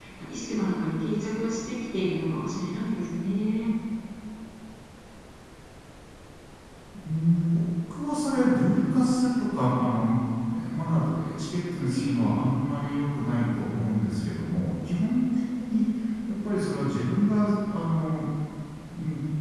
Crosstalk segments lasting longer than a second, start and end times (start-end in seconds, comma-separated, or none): none